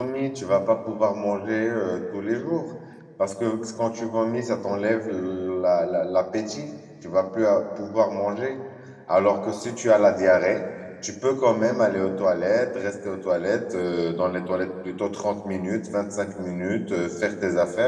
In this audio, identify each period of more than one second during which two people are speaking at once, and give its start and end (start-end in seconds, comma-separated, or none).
none